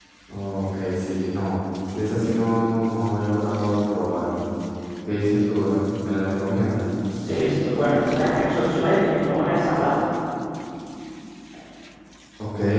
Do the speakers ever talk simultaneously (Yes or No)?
No